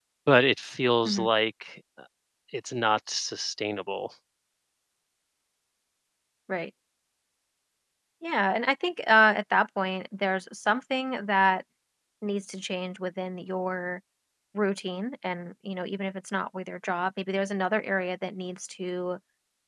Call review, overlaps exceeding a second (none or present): none